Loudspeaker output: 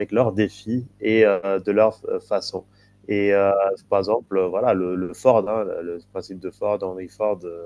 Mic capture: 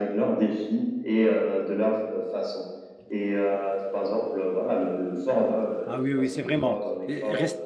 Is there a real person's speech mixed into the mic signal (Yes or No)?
Yes